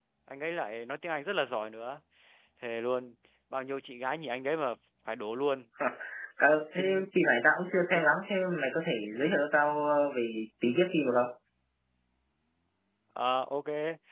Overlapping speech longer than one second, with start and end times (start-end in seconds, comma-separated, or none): none